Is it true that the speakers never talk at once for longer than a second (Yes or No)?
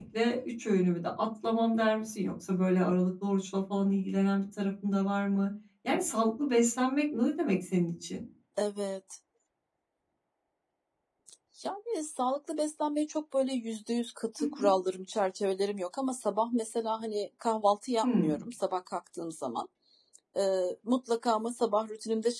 Yes